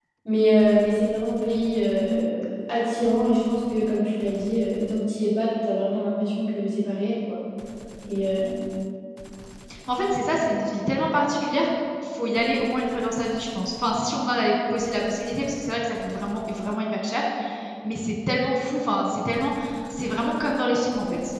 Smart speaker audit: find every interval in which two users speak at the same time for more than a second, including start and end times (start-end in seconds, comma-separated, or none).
none